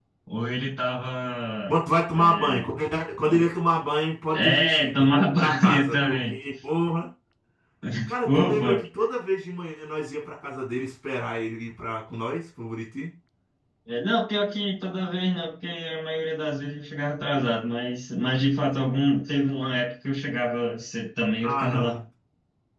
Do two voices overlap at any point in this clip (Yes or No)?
Yes